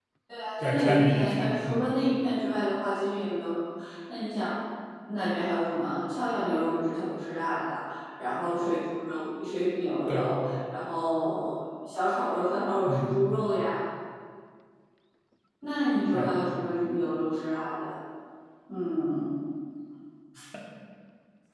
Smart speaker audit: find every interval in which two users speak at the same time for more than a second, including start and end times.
0.6-1.9

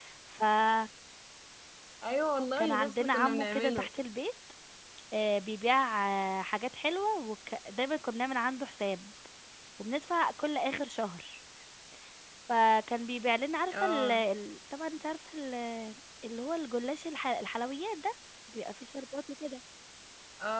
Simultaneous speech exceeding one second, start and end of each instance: 2.6-3.9

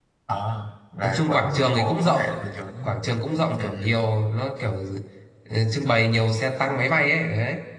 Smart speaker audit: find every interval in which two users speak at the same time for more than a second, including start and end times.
1.0-2.2

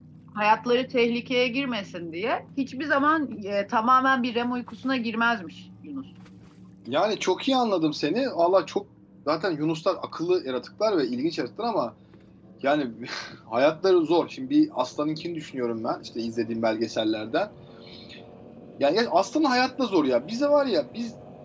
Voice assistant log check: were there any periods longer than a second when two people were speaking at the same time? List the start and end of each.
none

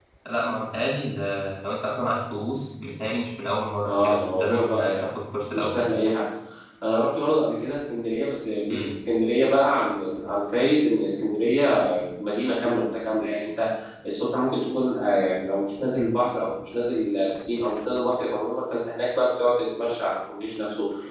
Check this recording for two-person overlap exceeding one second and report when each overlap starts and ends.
3.8-5.0

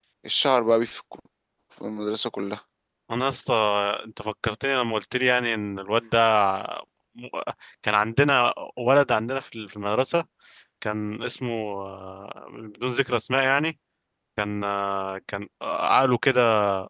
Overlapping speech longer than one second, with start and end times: none

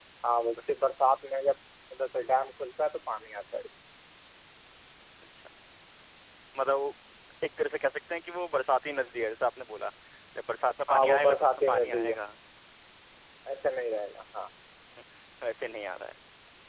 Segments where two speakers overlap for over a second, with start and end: 10.9-12.1

